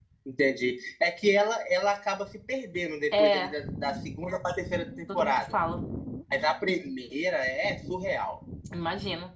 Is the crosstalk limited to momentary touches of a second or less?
Yes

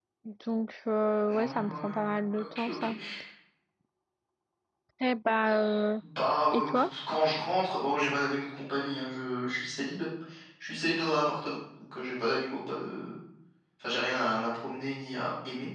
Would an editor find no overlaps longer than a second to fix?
No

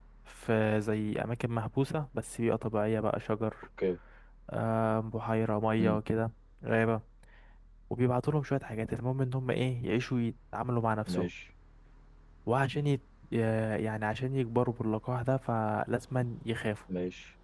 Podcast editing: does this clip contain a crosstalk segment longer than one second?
No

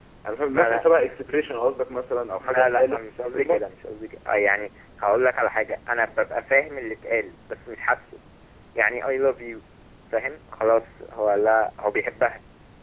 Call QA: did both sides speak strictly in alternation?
No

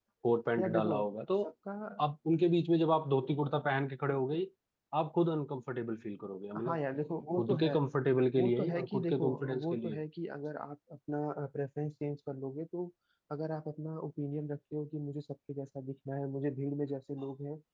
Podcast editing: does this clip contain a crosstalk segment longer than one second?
Yes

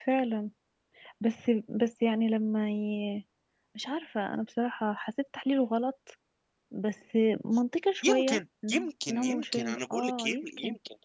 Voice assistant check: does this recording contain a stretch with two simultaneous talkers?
Yes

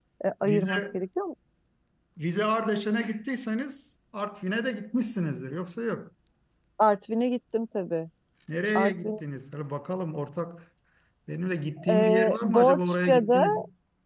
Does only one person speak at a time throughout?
No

